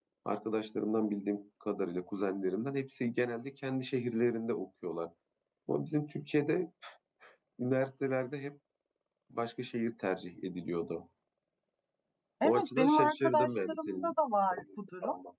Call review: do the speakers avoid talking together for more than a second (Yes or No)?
No